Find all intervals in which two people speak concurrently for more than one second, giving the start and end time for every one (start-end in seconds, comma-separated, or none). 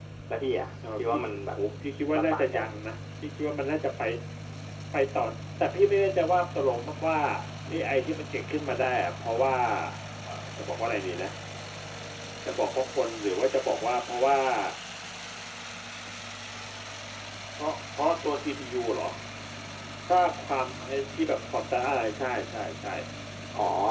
none